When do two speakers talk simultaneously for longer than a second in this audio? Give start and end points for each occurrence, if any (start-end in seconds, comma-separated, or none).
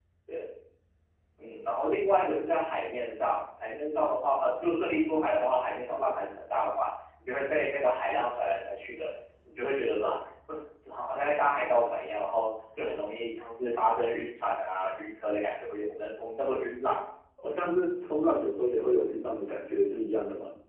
none